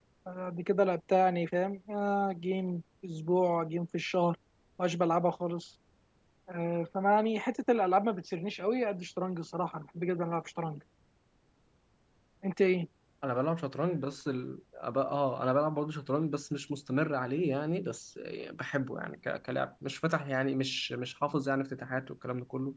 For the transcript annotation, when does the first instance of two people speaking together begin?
none

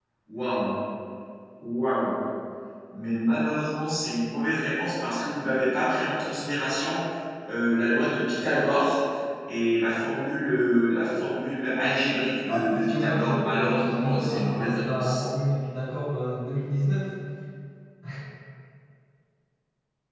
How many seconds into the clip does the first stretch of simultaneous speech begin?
12.5 s

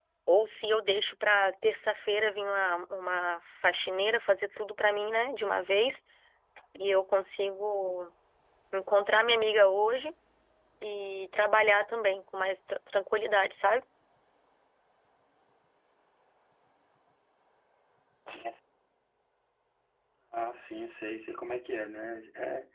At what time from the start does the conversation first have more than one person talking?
none

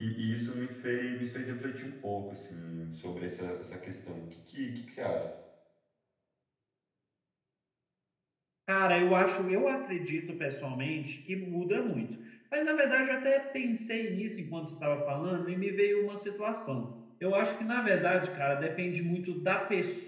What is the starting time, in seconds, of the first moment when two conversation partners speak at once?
none

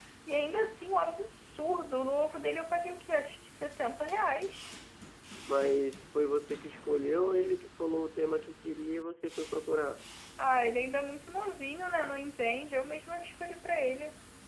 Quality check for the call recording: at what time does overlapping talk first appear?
none

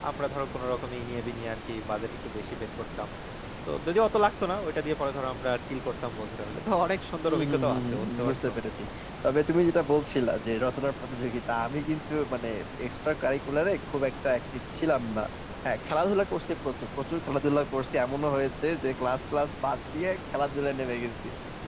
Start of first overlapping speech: 7.3 s

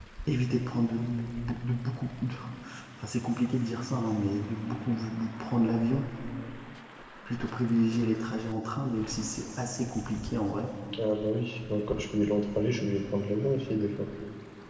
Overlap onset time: none

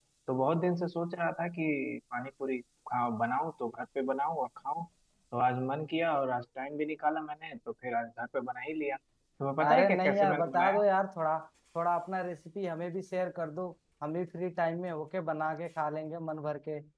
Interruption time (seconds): 9.6 s

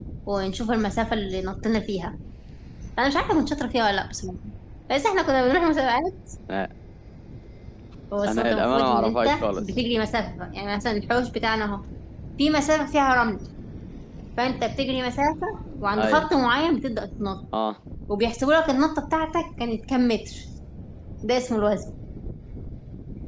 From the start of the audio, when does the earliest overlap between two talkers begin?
8.3 s

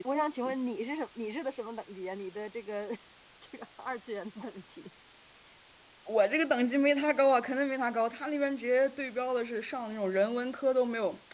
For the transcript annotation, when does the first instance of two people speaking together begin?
none

